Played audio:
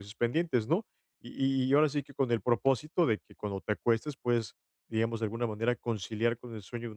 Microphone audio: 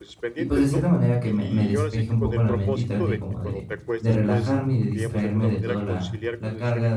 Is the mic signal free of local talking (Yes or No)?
No